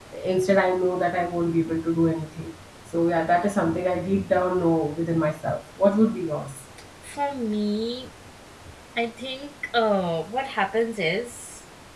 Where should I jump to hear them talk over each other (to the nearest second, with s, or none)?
none